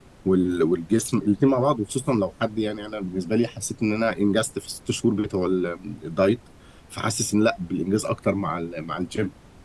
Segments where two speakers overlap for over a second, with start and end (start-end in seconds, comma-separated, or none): none